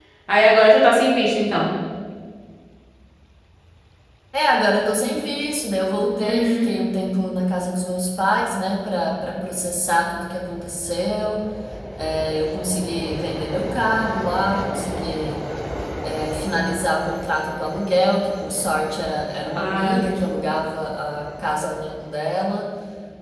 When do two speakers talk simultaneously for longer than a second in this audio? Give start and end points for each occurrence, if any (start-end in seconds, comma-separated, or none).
none